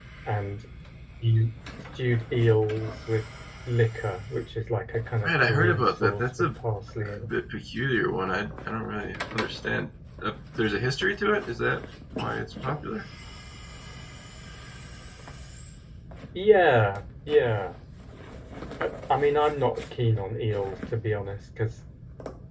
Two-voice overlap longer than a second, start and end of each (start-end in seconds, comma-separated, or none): 5.2-6.5